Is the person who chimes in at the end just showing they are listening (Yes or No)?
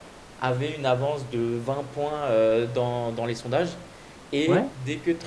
Yes